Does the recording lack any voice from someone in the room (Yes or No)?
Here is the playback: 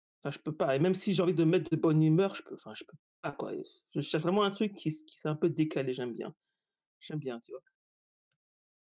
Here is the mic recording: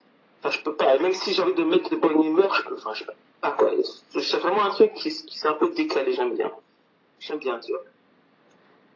Yes